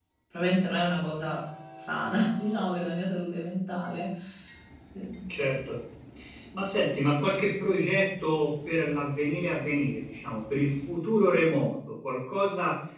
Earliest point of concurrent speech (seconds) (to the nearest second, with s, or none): none